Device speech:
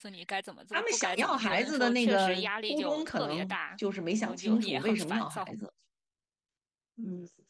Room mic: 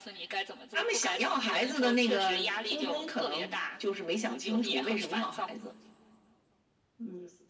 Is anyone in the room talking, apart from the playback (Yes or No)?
No